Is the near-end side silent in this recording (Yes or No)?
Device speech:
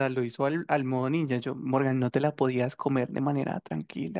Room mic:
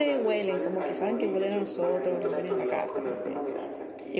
No